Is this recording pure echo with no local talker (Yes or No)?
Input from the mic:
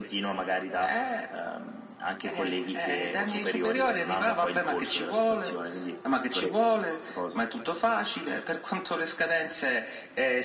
Yes